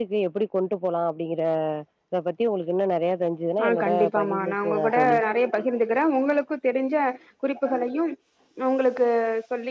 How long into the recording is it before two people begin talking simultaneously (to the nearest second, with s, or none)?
4 s